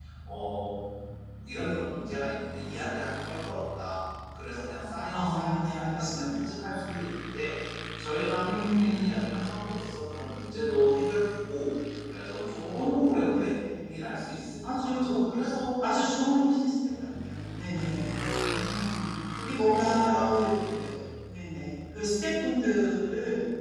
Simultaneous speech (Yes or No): Yes